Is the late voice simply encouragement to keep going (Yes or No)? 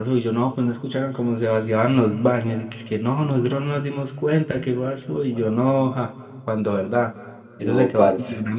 Yes